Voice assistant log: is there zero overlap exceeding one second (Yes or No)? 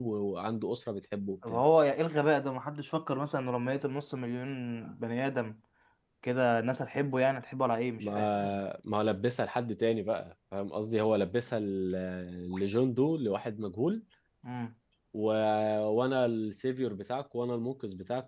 Yes